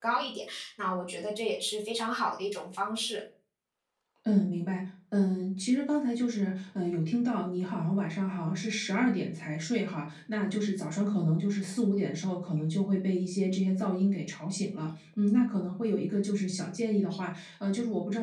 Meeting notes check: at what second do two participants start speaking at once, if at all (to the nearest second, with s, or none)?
none